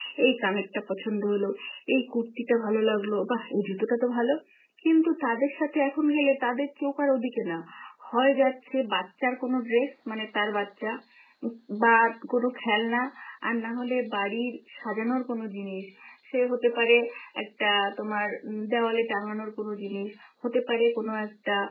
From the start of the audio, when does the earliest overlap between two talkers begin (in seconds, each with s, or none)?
none